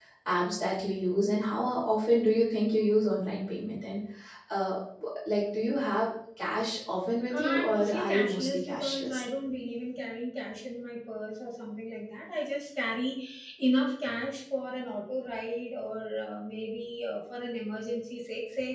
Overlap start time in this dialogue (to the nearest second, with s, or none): 7 s